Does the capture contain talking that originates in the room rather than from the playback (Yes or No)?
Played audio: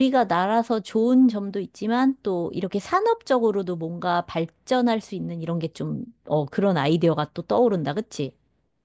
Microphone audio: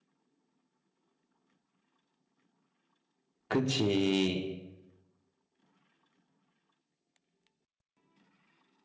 Yes